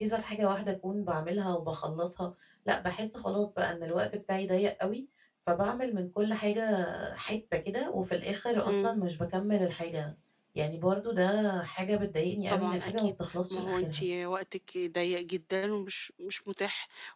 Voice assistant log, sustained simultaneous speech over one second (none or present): present